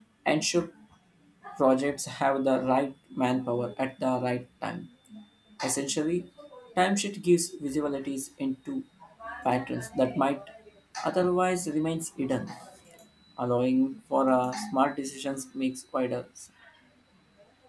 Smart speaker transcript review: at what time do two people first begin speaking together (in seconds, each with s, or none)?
none